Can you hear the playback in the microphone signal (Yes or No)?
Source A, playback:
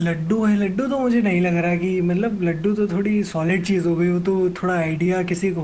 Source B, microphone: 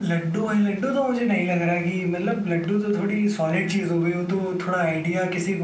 Yes